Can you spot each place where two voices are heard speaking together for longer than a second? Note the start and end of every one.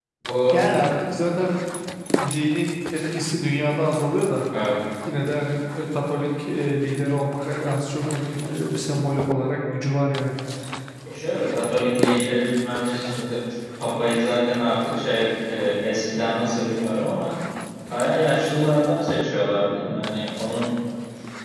none

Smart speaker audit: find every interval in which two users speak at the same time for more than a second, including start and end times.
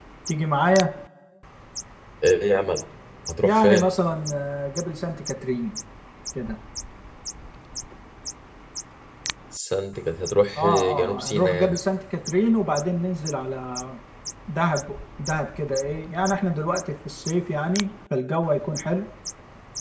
10.6-11.8

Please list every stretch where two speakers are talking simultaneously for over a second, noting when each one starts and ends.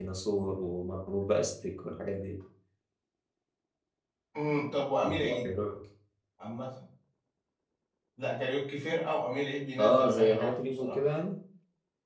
9.8-11.0

